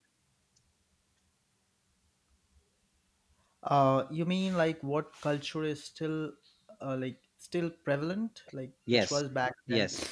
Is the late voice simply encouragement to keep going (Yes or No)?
No